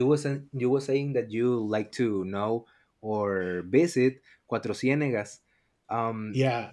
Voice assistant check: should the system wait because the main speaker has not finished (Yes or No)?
No